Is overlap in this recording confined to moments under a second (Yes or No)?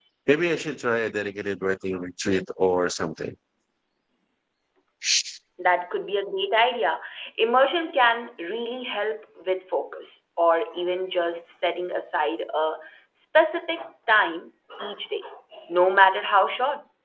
Yes